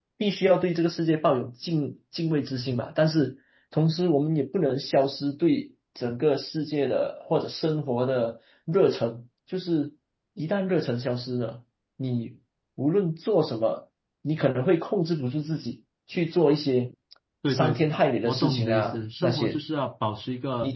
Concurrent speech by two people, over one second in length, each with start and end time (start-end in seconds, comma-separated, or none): 18.2-19.6